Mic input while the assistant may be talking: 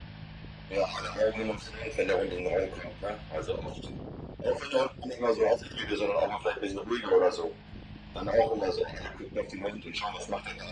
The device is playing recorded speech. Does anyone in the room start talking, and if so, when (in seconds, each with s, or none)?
none